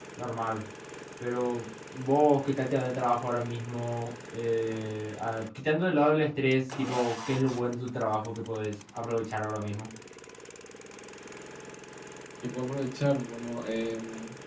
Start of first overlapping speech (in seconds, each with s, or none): none